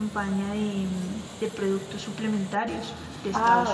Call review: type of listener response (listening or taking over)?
taking over